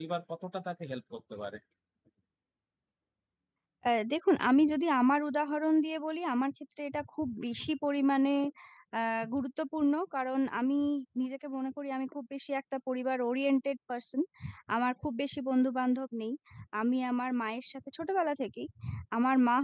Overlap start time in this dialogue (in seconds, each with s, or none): none